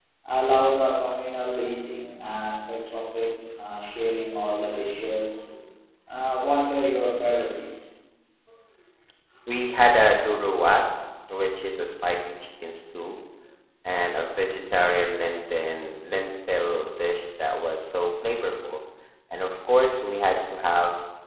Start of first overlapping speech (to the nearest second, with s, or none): none